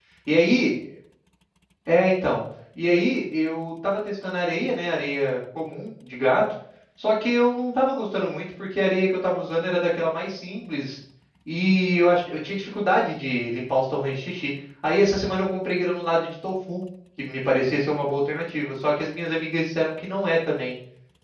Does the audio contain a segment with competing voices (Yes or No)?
No